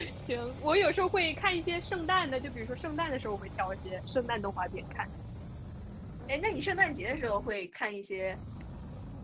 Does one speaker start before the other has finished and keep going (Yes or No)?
No